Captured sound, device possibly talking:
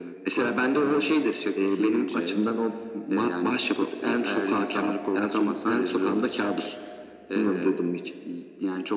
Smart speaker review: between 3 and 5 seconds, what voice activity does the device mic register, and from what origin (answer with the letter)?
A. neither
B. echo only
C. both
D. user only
B